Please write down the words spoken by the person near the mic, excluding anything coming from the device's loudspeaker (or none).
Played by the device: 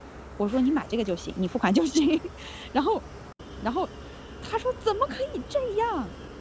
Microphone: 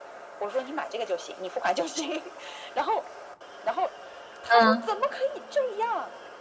嗯，